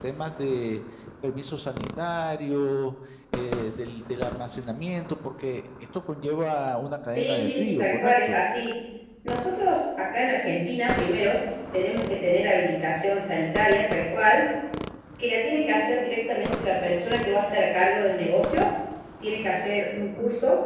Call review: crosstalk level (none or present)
present